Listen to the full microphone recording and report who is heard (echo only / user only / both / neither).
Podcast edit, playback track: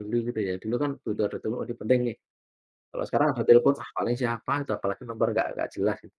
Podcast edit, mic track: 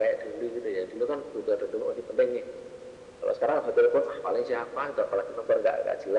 echo only